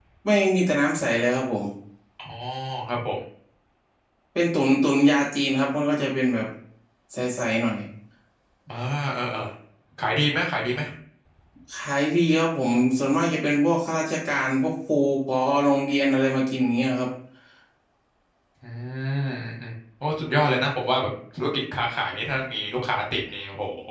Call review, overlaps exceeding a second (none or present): none